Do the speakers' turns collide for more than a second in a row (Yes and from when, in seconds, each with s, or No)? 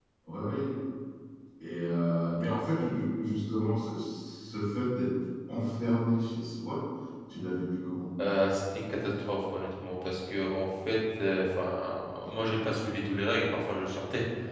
No